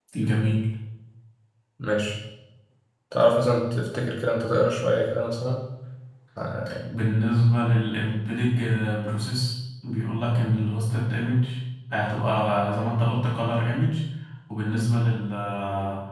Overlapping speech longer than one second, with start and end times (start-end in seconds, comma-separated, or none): none